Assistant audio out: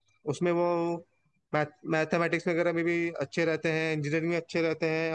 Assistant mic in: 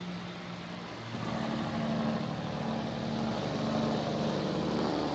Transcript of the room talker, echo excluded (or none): none